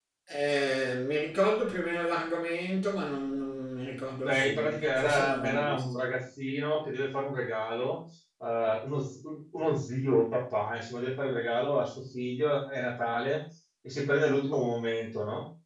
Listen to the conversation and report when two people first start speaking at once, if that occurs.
4.2 s

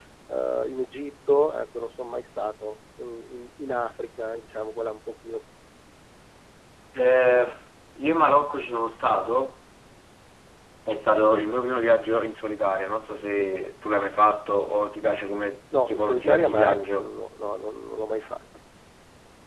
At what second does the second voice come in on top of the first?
15.7 s

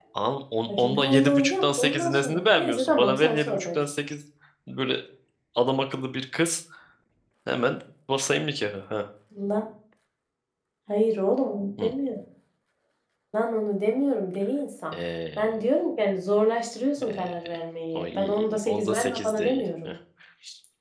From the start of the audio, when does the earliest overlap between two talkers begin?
0.8 s

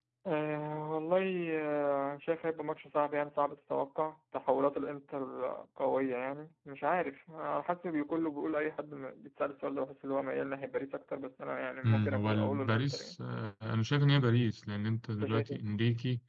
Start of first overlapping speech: 11.8 s

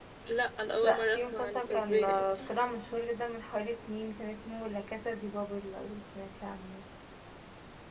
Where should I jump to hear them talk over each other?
0.8 s

